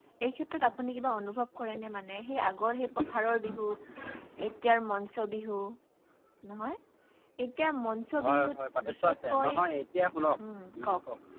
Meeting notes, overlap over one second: present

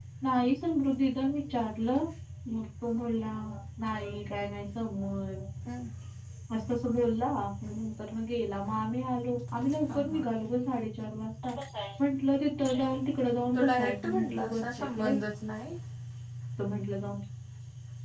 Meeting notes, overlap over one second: present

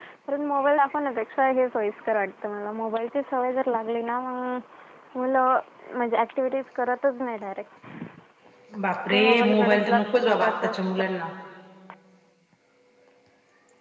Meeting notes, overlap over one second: present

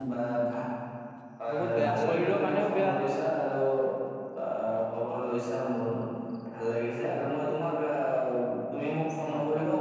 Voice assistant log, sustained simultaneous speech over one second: present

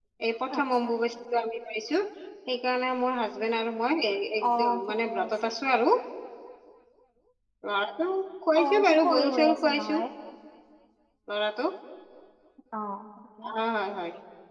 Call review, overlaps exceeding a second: present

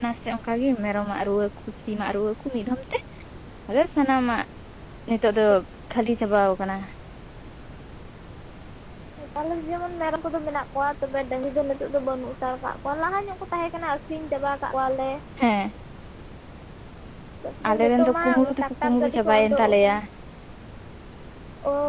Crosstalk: present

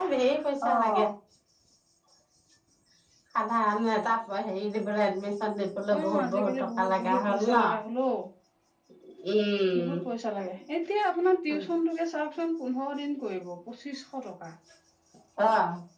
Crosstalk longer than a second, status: present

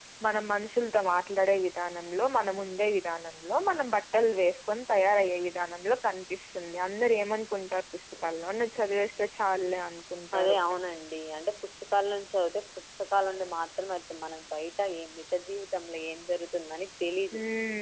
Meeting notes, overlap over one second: none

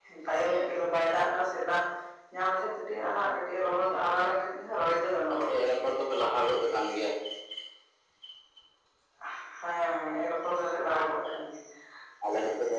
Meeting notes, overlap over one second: none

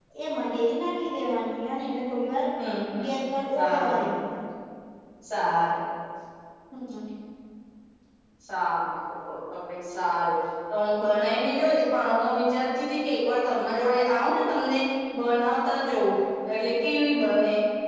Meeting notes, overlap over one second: none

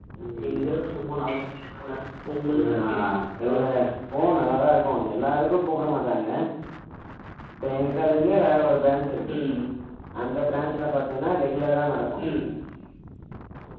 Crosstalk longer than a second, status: none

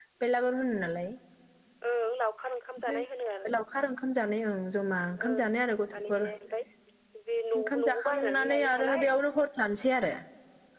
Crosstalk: present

